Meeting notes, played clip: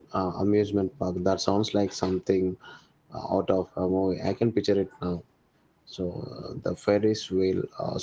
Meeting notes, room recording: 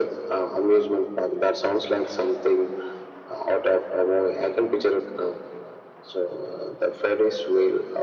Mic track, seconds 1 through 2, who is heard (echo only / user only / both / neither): echo only